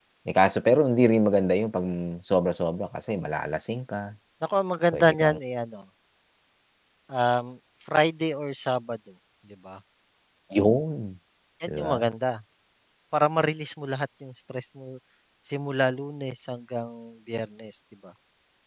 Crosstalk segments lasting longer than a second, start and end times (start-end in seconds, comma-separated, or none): none